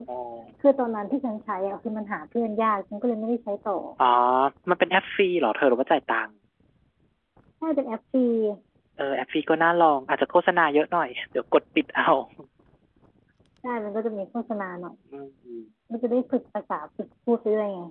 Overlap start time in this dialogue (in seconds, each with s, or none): none